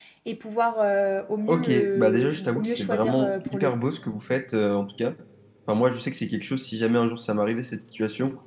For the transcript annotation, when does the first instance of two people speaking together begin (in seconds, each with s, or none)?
1.5 s